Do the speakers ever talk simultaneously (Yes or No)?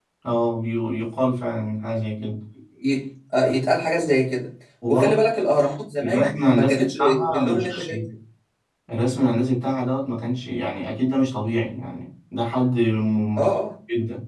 Yes